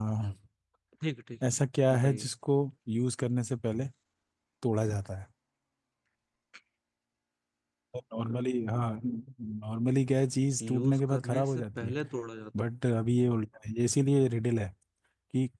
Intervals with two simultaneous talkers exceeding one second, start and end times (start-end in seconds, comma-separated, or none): 10.6-11.9